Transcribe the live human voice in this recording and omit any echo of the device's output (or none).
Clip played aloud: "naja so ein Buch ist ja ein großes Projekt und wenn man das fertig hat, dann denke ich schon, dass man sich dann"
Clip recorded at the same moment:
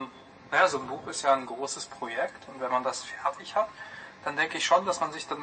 none